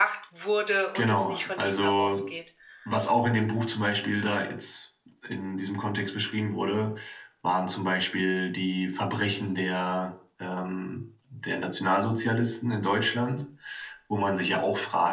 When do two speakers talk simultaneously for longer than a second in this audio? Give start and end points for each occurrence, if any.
0.9-2.2

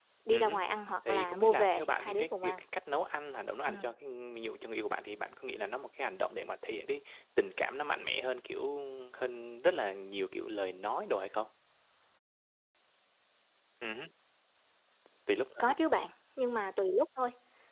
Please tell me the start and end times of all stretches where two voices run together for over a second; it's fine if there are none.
1.1-2.6

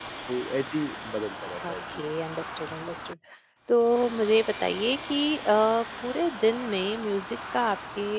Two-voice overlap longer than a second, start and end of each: none

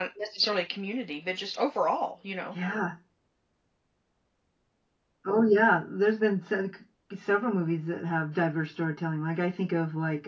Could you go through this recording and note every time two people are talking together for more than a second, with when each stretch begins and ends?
none

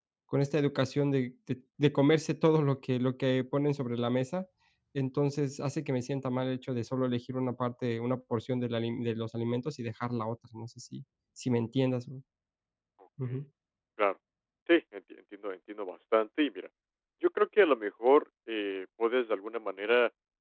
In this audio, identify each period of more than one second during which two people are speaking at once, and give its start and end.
none

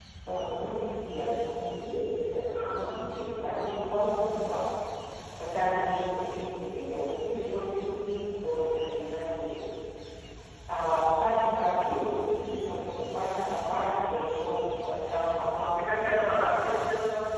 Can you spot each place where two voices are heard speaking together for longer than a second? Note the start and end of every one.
none

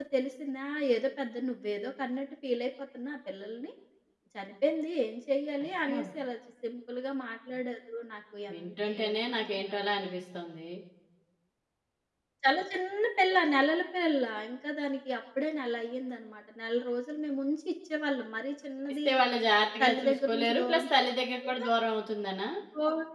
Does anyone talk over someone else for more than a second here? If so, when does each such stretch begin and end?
8.5-10.1, 19.8-21.1

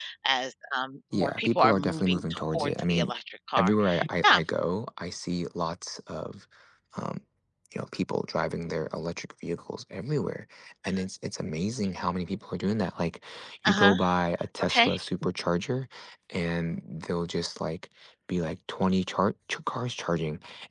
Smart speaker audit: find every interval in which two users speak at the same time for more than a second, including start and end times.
1.1-3.1

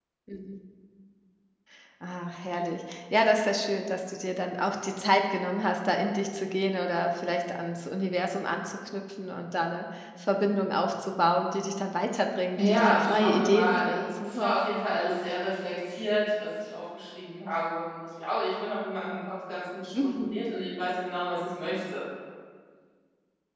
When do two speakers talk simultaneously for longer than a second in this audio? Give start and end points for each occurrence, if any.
12.6-14.5

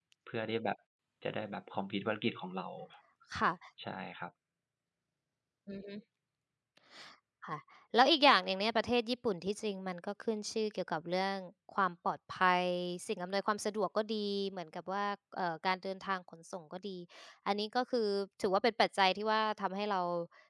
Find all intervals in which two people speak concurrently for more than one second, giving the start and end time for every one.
none

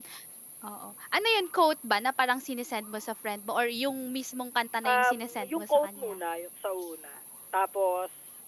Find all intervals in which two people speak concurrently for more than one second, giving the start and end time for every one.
4.8-6.2

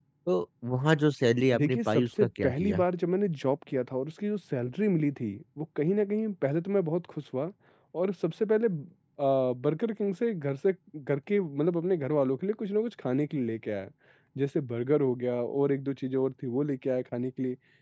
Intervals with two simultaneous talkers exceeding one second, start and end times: 1.6-2.8

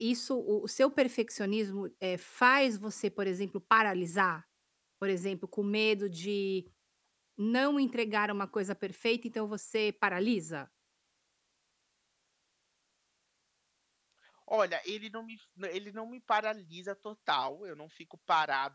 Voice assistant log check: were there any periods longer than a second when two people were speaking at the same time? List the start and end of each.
none

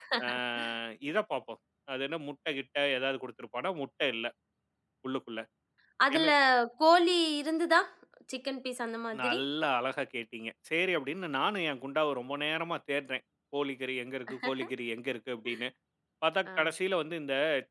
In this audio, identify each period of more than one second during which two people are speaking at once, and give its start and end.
none

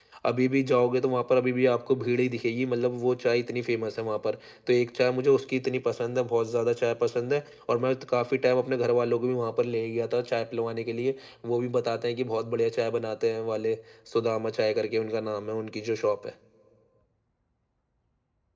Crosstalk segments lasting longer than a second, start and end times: none

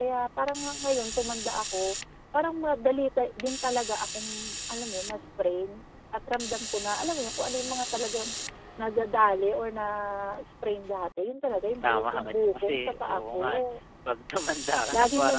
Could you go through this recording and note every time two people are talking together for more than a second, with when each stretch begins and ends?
11.8-13.6

